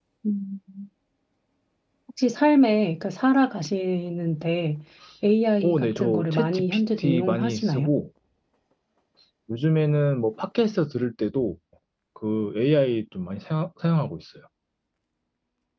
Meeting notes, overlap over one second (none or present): present